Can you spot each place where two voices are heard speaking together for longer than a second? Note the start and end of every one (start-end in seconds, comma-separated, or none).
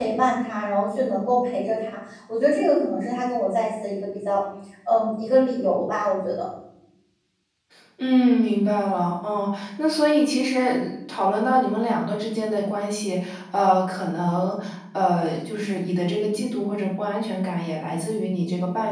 none